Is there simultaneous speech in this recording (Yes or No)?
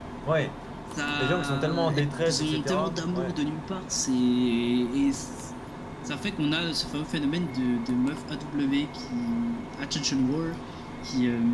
Yes